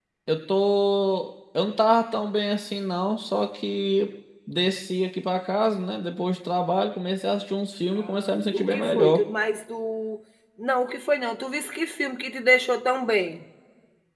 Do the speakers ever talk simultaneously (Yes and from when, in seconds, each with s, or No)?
Yes, from 8.0 s